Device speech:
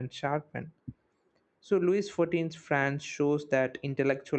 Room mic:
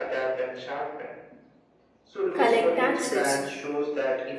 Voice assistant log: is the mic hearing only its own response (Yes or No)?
No